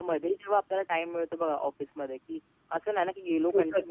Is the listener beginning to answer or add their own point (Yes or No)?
No